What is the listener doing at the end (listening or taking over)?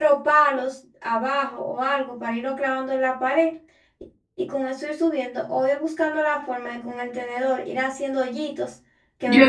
taking over